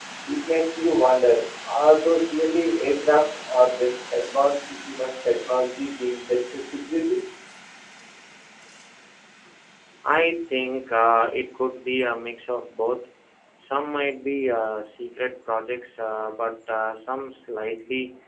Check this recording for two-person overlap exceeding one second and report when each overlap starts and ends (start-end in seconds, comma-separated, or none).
none